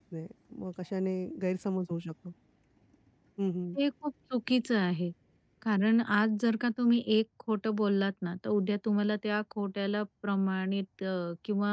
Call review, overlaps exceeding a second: none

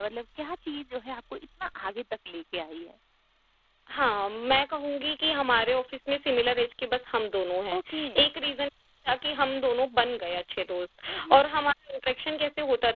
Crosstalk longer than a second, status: none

